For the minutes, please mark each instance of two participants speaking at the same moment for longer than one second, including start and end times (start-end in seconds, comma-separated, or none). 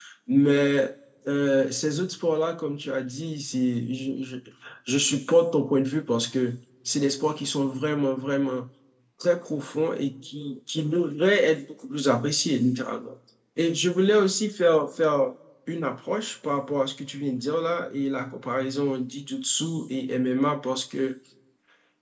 none